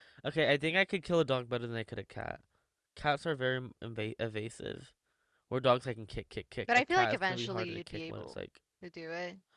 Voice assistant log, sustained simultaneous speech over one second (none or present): present